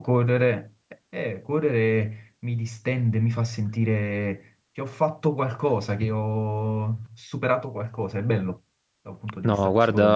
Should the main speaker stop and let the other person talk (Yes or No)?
Yes